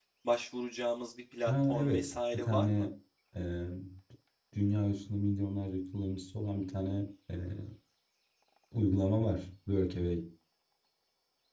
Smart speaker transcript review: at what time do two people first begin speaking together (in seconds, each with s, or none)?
1.5 s